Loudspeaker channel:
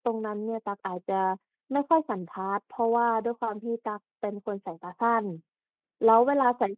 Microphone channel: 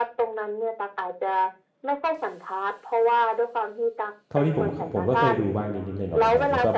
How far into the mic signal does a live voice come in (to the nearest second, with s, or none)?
4 s